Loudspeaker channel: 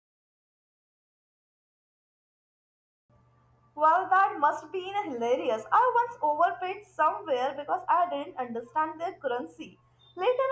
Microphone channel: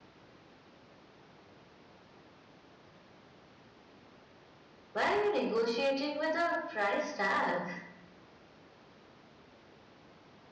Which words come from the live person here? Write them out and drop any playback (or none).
why are you negotiating with a price tag?